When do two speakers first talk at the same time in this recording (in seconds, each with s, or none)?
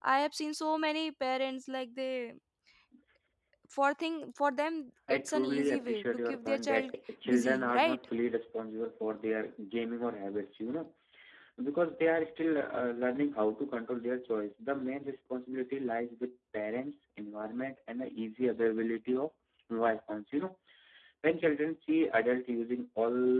5.1 s